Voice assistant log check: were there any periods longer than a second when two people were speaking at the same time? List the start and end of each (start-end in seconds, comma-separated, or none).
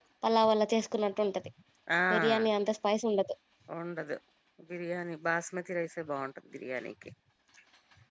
none